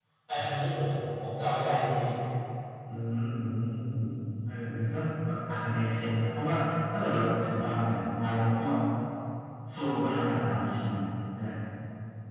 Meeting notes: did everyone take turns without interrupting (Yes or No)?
Yes